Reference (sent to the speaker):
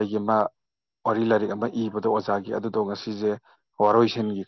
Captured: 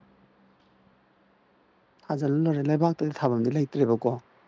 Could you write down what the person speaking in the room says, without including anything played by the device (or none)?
ꯊꯥꯖꯤꯜꯂꯣꯏꯔꯦ ꯂꯩꯕꯥꯛꯇꯗꯤ ꯊꯥꯕꯝꯗꯤ ꯂꯩꯇ꯭ꯔꯦꯕꯀꯣ